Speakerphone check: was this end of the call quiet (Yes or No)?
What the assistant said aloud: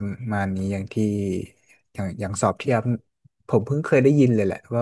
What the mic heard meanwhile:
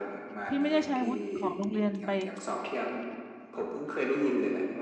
No